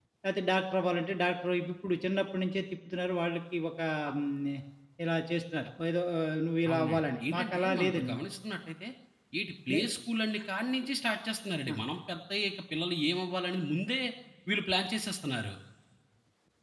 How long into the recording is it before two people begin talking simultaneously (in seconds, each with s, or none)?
6.7 s